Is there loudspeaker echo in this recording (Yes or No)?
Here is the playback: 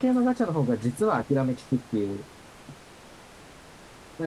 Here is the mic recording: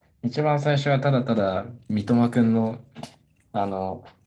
No